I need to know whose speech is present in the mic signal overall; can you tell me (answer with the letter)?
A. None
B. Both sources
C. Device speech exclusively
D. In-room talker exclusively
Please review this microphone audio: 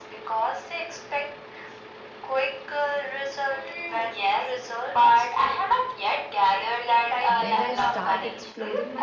B